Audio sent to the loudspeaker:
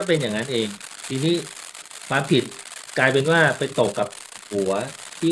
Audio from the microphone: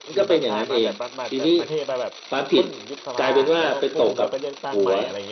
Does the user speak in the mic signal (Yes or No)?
Yes